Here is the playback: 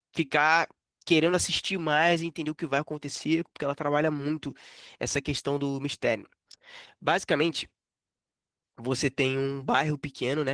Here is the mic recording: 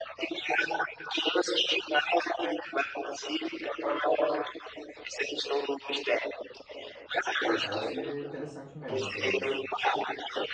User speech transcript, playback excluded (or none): Cara, parece interessante mesmo a premissa.